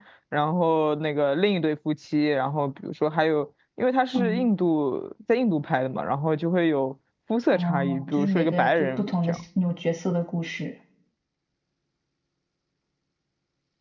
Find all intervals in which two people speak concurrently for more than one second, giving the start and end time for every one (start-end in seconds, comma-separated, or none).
7.5-9.4